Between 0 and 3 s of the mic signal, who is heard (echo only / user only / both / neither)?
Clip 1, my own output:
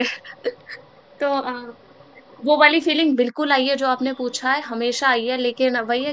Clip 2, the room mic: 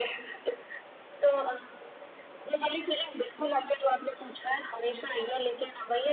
echo only